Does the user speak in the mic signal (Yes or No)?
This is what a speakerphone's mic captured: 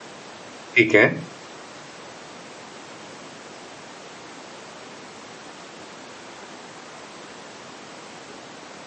Yes